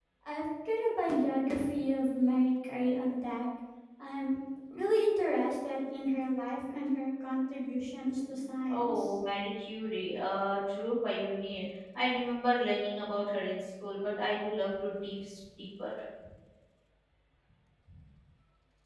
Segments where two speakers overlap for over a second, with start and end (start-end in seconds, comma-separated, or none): none